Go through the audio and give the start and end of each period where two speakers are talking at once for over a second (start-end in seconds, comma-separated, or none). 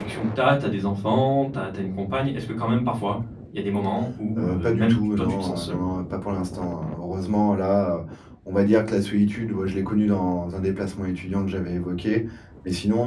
4.4-5.8